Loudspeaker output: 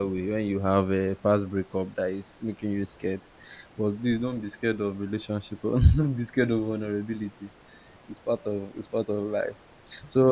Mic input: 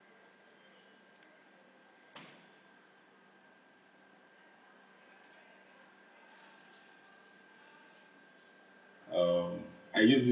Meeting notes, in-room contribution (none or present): present